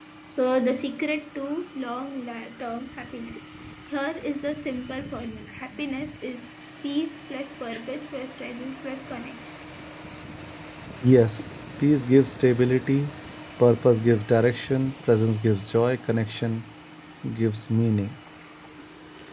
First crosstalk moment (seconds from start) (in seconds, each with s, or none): none